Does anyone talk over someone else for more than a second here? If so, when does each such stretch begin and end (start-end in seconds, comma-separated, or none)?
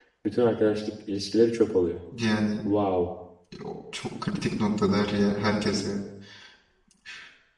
none